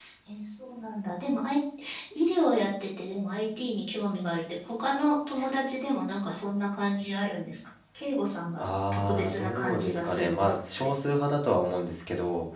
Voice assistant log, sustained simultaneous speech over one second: present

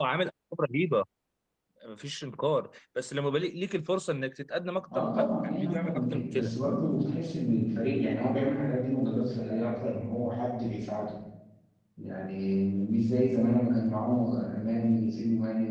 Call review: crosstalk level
present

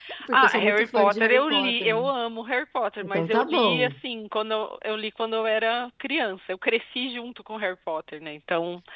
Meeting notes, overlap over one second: present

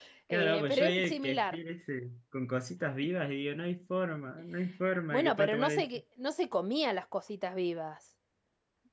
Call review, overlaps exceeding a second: present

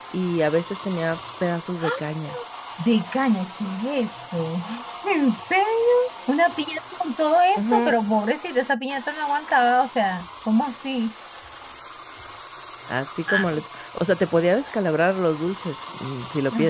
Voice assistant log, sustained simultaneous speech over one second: none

